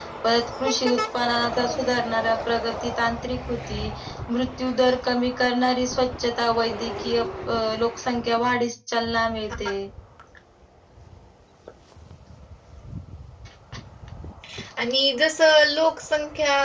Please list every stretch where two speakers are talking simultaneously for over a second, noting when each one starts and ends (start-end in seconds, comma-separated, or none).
none